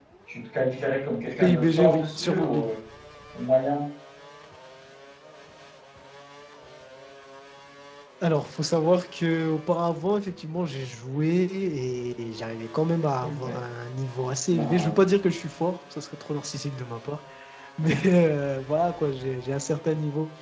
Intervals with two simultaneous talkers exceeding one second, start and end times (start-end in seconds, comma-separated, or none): 1.4-2.7